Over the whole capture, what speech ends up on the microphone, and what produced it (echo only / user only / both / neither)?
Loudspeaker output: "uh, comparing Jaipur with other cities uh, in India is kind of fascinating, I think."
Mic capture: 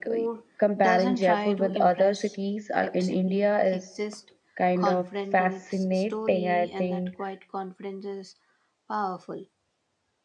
both